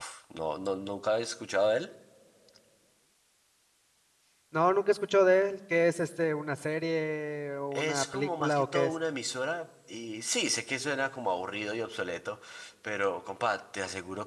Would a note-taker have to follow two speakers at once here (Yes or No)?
Yes